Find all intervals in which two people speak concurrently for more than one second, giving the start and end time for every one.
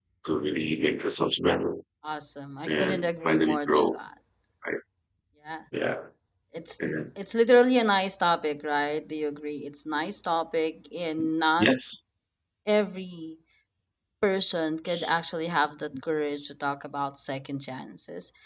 2.7-4.0

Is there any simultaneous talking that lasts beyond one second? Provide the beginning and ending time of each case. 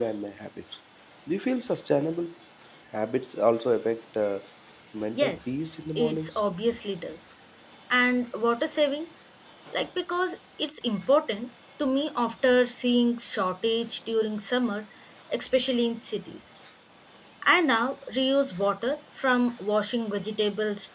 5.2-6.4

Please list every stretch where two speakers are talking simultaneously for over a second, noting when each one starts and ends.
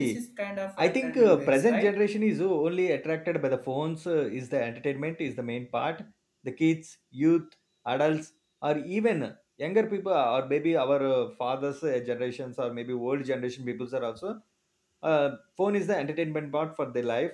0.8-2.0

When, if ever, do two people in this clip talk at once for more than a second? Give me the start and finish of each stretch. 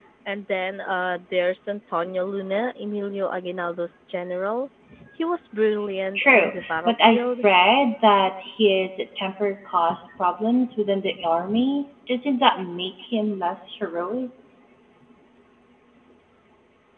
6.1-7.4

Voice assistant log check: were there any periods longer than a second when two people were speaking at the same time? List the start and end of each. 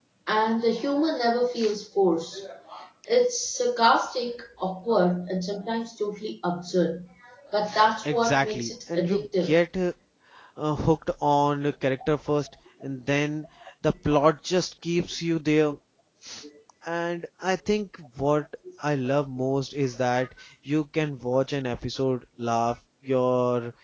8.1-9.6

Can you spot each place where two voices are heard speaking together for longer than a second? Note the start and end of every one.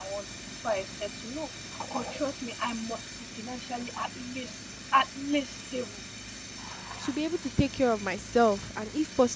none

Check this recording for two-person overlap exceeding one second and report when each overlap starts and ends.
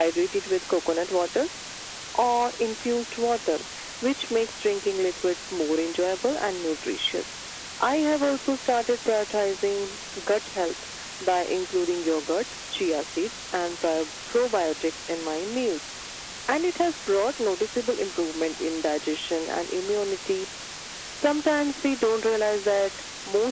none

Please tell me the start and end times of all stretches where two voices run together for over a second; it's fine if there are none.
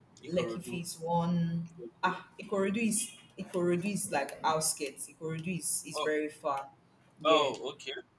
none

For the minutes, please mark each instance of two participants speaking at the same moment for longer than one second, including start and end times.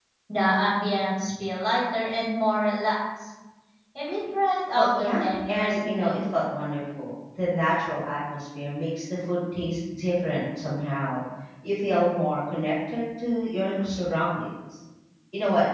4.8-6.2

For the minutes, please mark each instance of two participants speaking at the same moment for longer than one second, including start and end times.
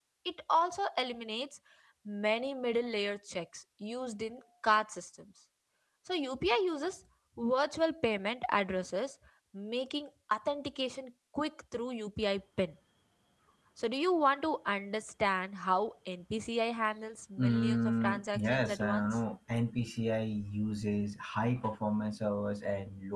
17.4-19.2

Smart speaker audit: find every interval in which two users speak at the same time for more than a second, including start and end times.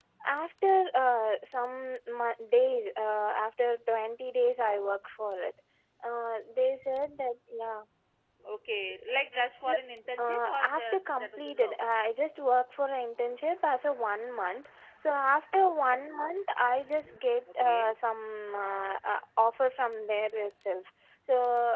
10.2-11.7

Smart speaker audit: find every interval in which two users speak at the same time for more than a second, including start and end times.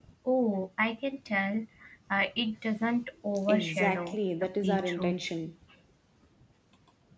3.5-5.2

